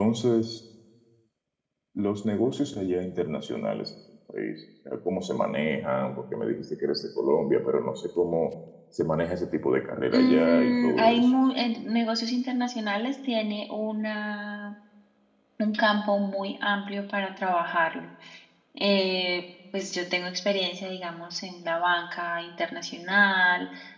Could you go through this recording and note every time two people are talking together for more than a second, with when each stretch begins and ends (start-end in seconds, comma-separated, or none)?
10.1-11.3